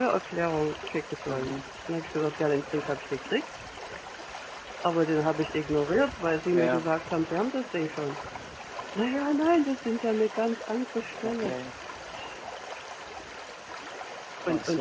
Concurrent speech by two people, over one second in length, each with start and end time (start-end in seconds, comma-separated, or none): none